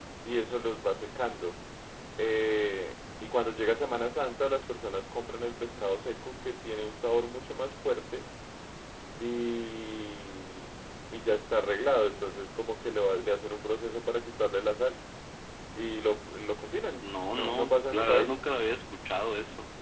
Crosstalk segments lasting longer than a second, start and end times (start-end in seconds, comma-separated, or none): 17.0-18.4